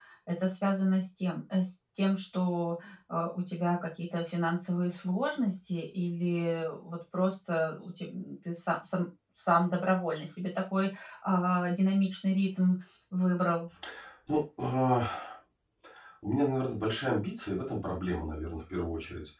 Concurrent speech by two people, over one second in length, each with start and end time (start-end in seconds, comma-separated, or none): none